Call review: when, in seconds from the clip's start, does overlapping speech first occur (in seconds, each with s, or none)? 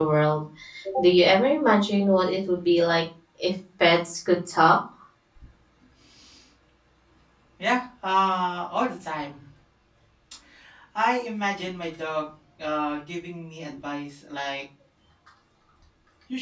none